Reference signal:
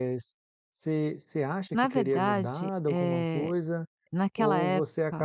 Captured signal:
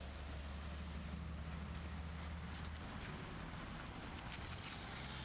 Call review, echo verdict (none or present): none